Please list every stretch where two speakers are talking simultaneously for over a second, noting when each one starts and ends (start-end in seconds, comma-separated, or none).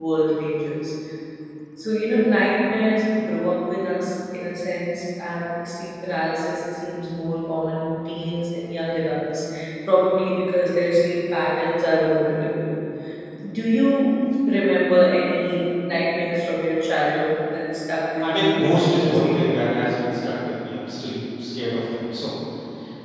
18.2-19.5